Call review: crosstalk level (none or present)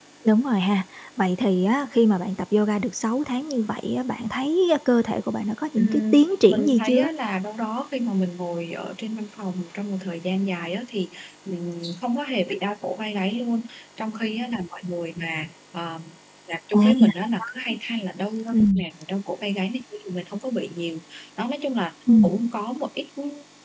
present